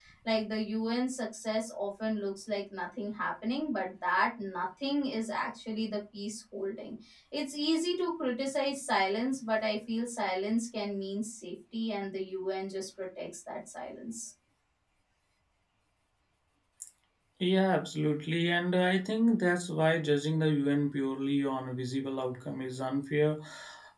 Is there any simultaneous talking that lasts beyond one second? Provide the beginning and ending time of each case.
none

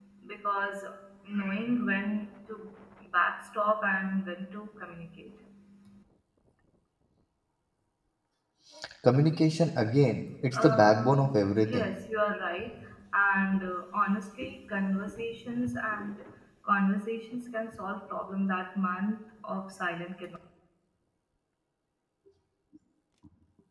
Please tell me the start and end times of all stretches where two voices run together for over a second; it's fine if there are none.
10.5-11.9

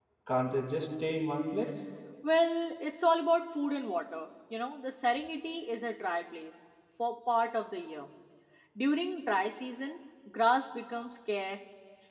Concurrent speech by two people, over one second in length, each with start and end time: none

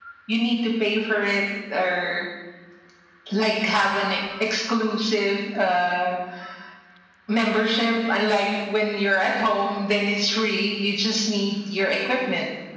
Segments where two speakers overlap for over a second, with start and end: none

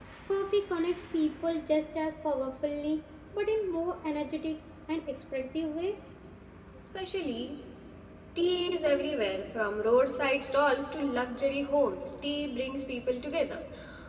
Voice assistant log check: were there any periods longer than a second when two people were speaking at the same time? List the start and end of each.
none

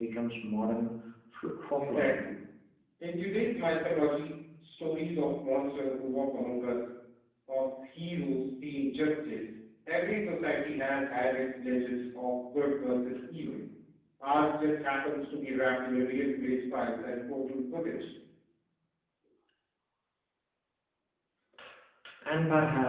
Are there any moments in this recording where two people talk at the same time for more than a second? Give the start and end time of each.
none

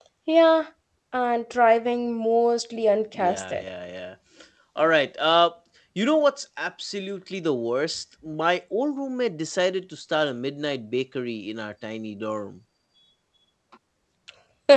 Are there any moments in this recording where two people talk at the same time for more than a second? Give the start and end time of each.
none

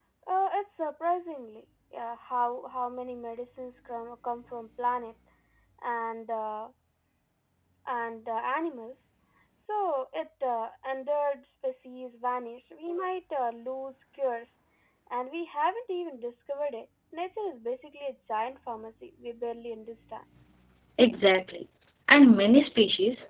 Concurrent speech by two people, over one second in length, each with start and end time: none

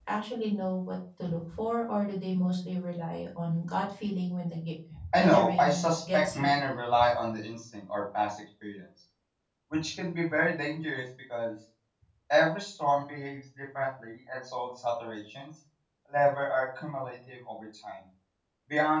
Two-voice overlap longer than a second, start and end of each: 5.2-6.5

